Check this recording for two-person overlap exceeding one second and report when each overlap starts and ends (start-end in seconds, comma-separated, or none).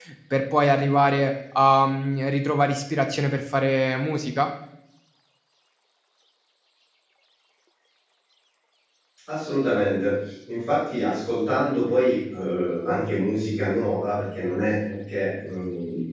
none